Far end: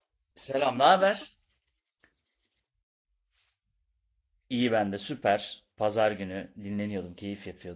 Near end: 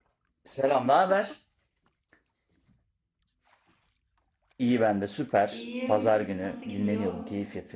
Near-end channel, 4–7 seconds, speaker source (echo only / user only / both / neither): both